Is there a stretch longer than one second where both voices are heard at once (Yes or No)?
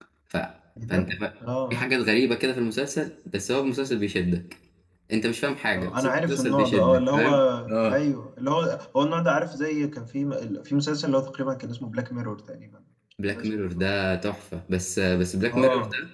Yes